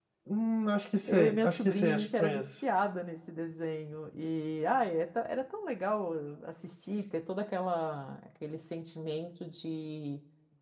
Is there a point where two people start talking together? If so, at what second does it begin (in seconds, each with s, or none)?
1.1 s